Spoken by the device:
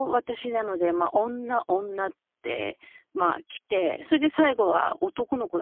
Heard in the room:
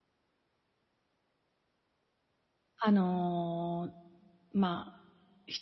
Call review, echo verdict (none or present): none